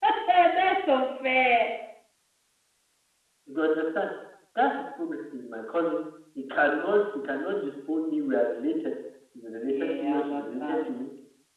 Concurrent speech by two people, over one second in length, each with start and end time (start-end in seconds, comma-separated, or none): 9.7-10.9